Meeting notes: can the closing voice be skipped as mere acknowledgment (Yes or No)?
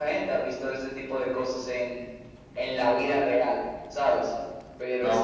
Yes